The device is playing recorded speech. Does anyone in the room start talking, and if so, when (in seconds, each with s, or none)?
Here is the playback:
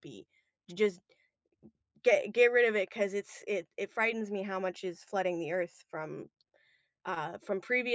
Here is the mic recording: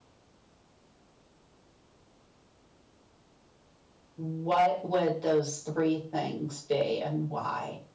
4.2 s